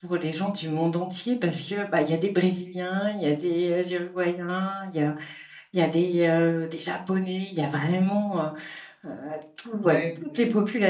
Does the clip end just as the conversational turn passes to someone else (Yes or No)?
No